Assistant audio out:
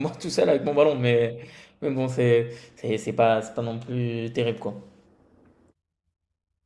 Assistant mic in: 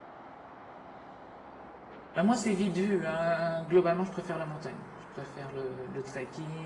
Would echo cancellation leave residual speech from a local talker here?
Yes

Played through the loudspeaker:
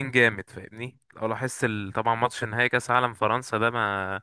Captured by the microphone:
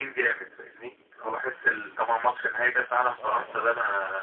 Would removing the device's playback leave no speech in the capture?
No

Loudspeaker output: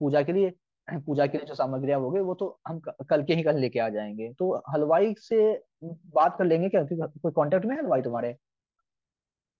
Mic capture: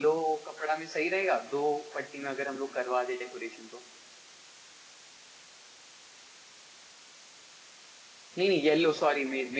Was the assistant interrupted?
Yes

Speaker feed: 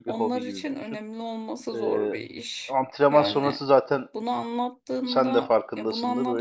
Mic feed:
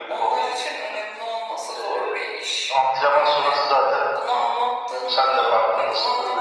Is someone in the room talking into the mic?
No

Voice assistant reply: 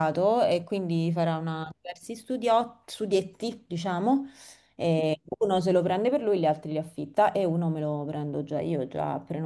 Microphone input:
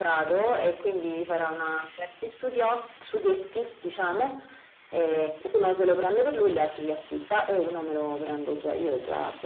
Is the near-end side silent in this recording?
Yes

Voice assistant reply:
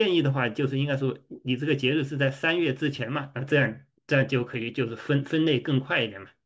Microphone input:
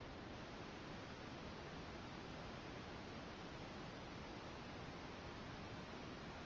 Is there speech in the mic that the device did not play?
No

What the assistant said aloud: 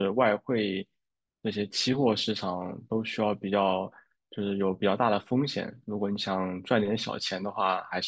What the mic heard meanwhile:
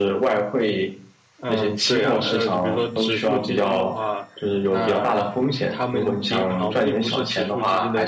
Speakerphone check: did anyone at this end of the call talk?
Yes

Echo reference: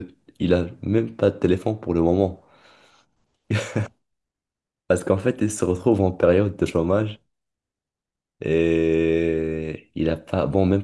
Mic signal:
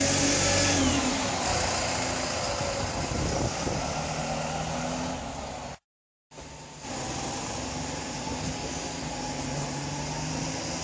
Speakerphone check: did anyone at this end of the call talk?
No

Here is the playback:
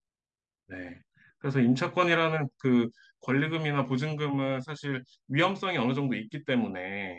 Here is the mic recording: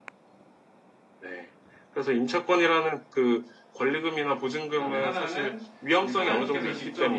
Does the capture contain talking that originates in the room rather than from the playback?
Yes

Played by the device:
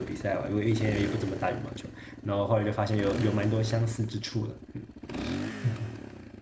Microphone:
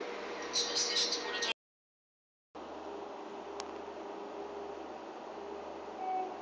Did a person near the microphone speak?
No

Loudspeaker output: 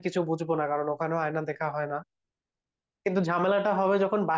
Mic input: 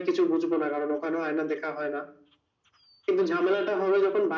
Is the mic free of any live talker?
Yes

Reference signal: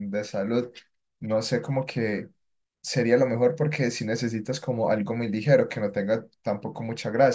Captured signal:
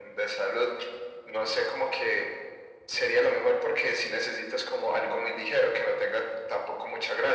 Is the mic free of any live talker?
Yes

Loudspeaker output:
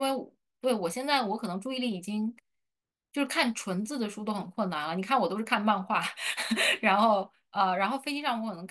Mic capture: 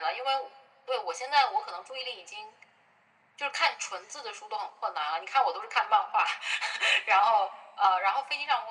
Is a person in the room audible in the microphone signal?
No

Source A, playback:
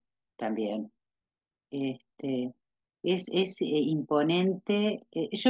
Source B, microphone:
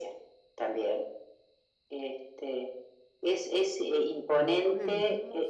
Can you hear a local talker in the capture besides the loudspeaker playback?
Yes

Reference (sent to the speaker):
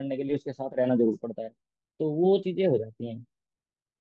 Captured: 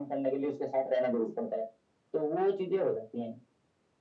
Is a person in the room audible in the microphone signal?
No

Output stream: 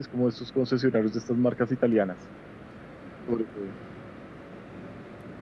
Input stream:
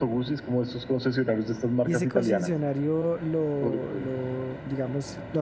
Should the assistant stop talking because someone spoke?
Yes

